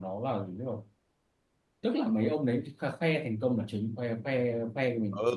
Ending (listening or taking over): taking over